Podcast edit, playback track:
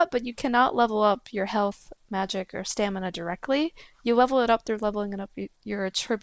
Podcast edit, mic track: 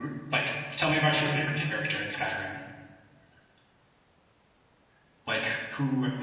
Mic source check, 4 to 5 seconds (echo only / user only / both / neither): neither